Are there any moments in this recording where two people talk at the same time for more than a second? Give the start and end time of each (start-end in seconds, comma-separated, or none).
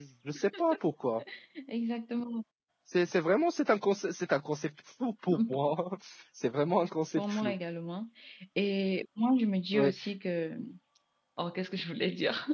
none